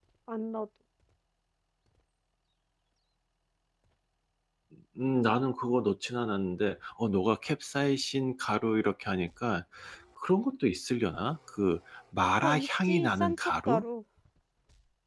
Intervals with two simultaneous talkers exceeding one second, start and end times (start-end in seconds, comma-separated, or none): 12.4-13.8